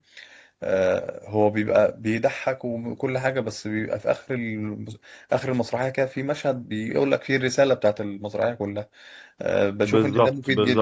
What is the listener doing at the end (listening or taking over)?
taking over